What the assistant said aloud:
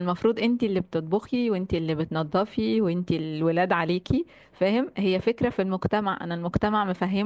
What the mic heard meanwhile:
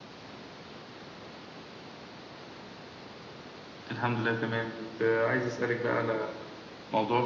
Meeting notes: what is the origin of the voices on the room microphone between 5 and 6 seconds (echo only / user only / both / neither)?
user only